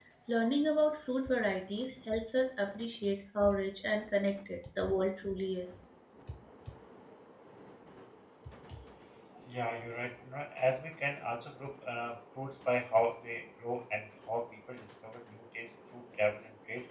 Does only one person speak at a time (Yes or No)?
Yes